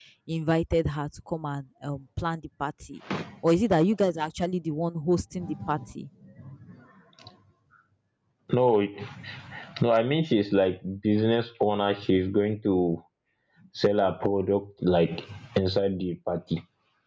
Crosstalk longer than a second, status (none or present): none